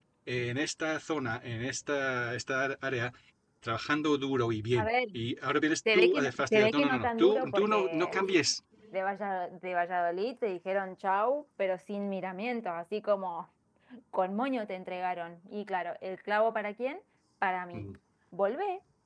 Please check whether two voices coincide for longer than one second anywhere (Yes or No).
Yes